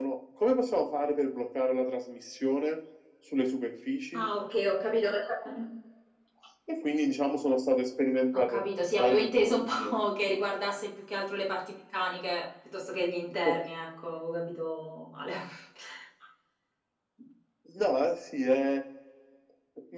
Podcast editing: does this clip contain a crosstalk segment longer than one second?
Yes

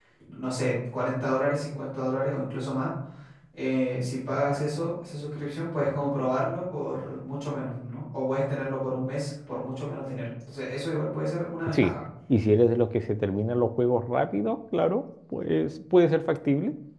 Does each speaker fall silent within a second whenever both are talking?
Yes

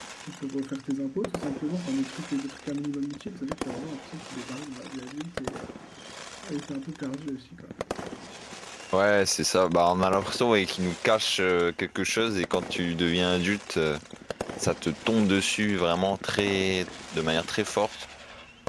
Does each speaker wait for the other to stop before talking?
Yes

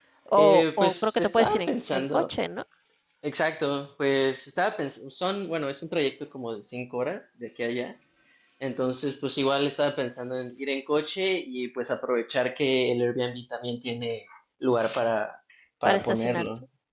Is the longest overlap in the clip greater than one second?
Yes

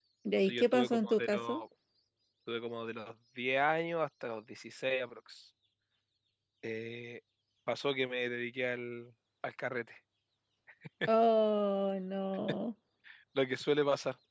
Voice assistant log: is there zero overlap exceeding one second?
No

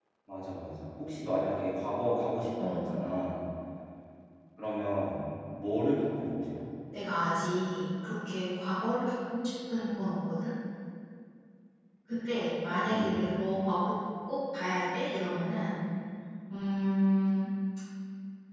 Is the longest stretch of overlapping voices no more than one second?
Yes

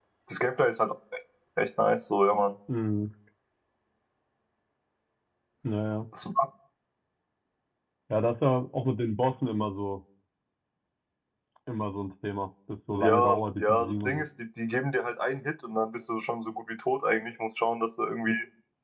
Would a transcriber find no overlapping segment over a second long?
No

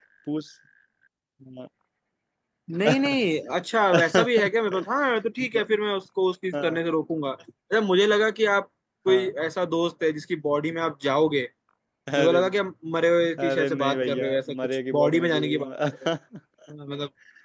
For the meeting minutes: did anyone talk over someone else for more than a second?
Yes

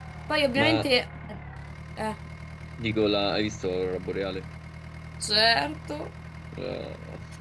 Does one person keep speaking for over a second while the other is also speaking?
No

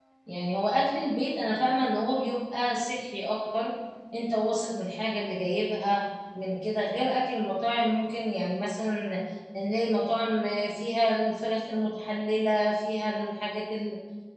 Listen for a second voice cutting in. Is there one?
No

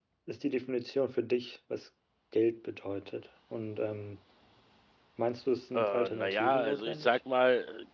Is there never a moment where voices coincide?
No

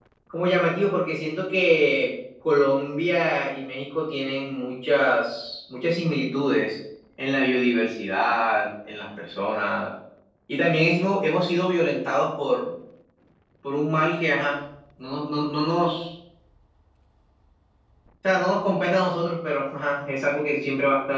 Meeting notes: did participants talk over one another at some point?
No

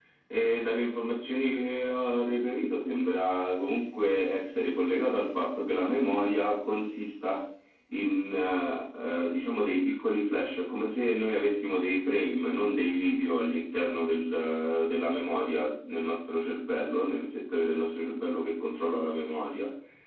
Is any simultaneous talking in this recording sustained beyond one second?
No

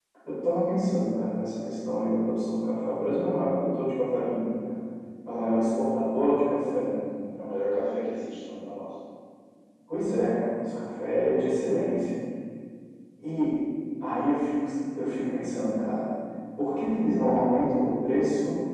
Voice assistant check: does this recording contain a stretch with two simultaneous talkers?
No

